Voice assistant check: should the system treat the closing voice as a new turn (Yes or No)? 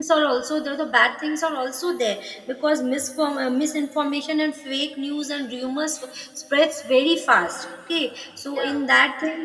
No